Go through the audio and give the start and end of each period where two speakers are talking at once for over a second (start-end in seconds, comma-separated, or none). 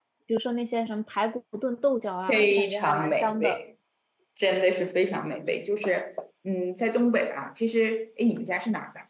2.3-3.6